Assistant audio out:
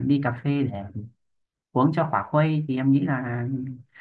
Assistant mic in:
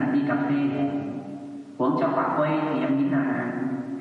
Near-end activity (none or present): none